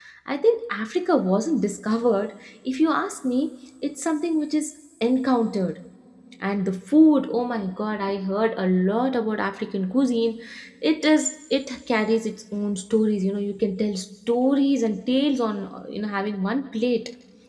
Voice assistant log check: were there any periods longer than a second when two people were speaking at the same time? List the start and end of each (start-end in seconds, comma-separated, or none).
none